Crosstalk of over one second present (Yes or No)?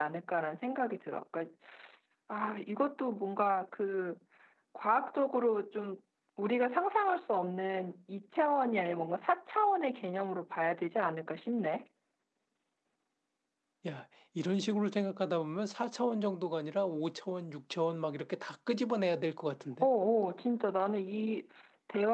No